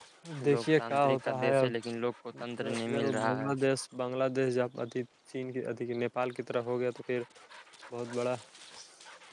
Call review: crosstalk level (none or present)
present